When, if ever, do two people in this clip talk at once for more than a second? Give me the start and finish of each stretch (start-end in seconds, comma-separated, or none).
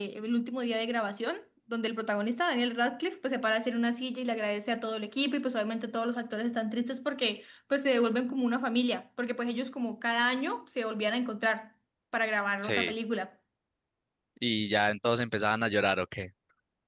none